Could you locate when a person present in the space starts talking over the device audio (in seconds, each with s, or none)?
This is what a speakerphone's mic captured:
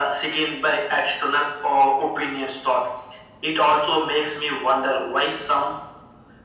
none